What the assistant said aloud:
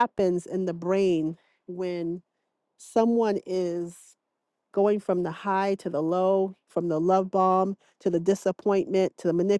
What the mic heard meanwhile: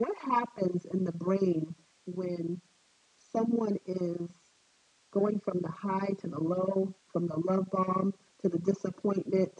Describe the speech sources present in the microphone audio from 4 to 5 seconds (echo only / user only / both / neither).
echo only